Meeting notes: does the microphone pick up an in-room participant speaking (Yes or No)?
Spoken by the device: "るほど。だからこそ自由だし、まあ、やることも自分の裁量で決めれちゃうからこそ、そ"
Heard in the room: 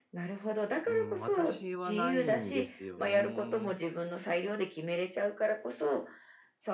Yes